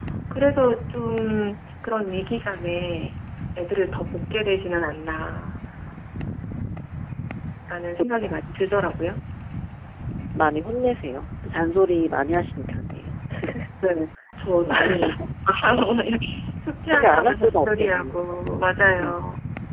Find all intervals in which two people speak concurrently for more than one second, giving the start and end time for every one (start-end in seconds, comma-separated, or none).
16.9-18.4